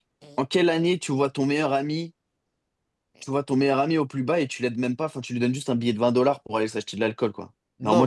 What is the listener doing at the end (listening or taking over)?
taking over